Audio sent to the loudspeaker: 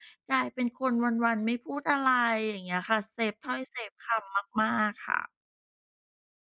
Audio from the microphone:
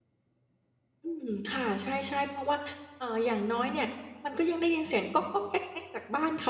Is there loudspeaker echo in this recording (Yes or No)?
No